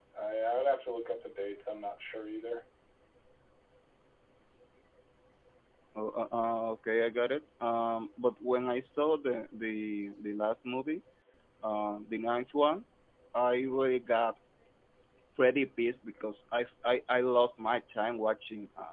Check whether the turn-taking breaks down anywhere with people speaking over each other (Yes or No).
No